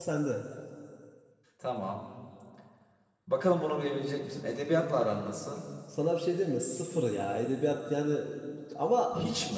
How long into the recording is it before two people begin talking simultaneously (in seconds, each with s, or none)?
none